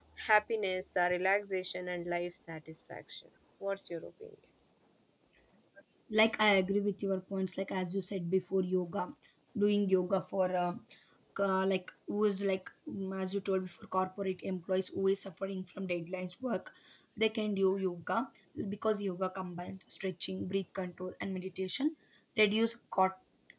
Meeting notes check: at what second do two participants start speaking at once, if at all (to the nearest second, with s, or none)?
none